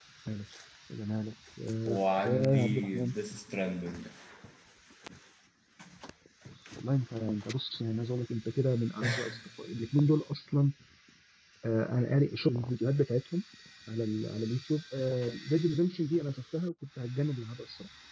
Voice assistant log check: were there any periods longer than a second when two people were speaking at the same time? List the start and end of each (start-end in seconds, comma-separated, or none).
1.9-3.1